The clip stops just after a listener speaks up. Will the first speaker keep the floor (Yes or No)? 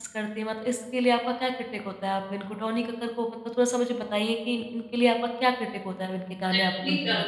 No